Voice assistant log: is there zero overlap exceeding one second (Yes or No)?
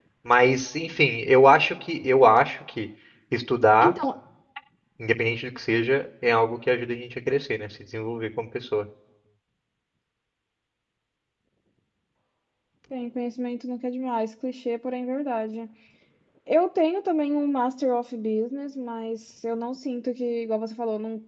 Yes